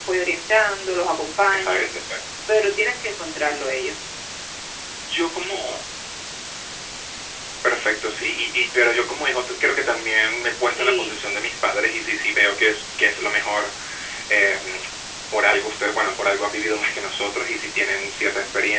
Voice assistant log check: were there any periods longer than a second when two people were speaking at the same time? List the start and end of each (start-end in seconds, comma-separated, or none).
none